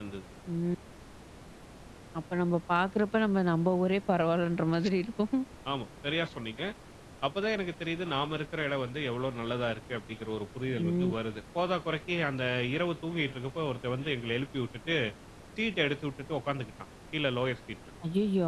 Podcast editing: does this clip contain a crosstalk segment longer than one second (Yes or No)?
No